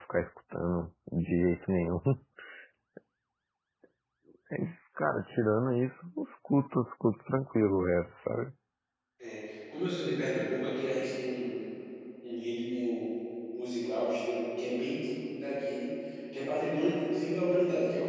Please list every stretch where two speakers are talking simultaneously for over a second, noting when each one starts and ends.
none

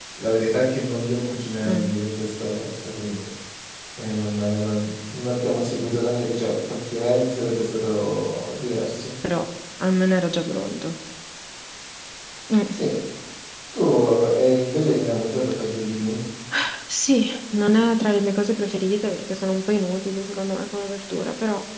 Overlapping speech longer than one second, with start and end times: none

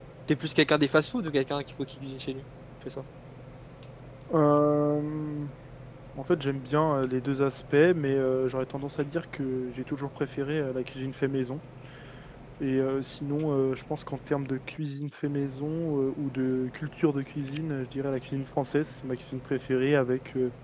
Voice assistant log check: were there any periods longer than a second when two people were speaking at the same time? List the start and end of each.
none

